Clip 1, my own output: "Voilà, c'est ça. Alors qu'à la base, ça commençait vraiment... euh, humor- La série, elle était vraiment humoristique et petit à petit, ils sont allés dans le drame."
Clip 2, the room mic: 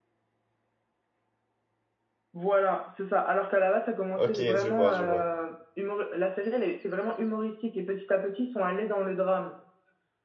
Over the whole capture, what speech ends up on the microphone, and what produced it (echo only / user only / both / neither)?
both